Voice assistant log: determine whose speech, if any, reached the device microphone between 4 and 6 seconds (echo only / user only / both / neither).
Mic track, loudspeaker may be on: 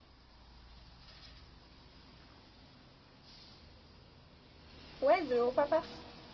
user only